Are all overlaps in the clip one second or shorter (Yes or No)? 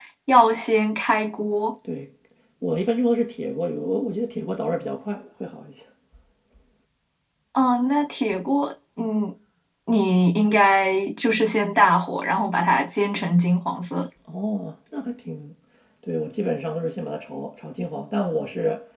Yes